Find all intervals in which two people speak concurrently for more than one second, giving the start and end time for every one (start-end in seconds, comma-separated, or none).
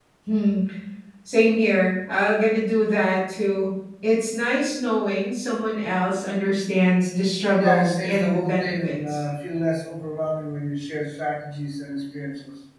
7.5-9.2